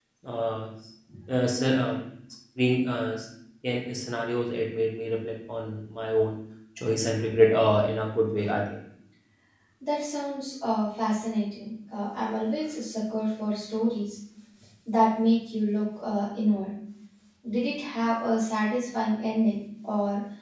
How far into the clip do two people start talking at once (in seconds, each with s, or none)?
none